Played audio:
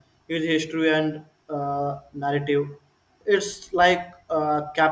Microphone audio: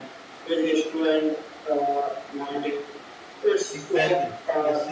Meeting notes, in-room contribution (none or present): present